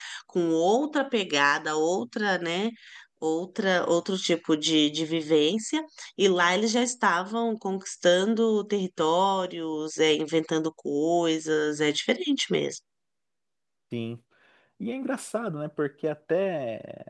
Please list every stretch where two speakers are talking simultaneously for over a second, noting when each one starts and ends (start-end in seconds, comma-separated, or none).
none